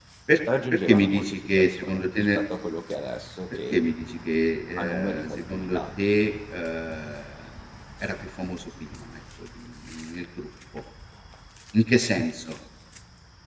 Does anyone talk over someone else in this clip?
Yes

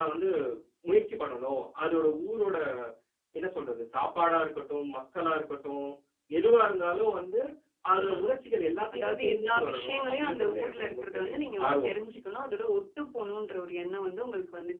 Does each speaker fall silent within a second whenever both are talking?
No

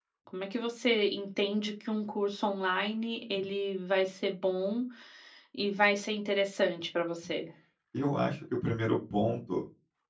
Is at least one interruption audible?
No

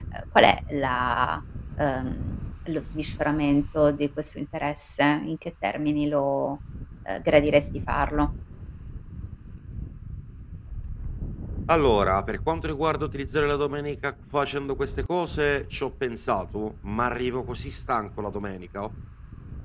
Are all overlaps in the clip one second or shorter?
Yes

